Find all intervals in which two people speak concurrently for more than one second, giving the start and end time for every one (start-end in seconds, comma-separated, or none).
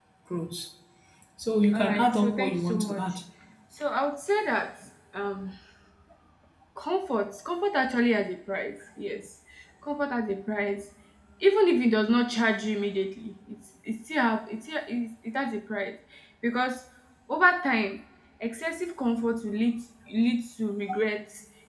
1.7-3.1